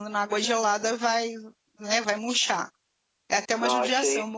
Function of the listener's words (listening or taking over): listening